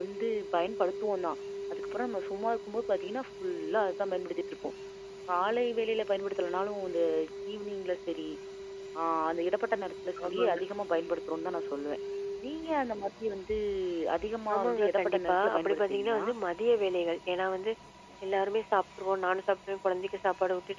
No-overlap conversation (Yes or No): No